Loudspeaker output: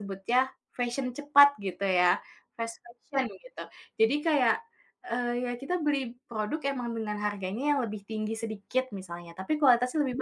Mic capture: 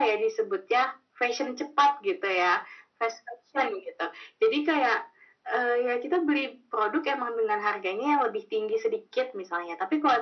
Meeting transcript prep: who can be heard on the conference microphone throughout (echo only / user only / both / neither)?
echo only